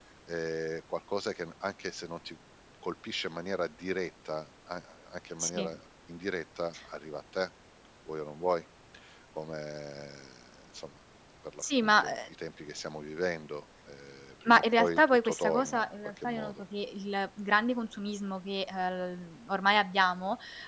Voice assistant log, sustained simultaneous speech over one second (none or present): present